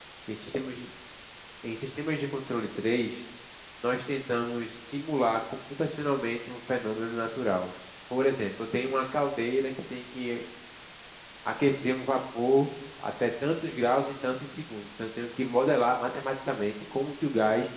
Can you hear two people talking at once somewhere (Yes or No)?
No